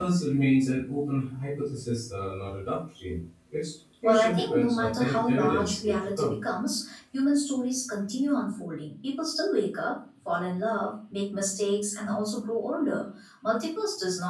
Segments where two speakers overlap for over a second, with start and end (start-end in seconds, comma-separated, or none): 4.0-6.3